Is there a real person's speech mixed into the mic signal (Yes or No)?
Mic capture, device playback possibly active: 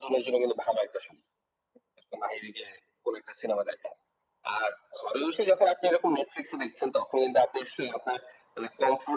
No